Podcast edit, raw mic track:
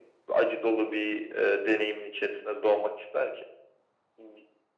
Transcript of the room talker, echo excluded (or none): none